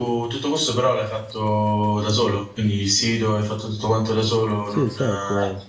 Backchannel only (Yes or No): No